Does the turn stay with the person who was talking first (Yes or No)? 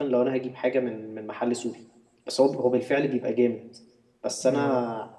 Yes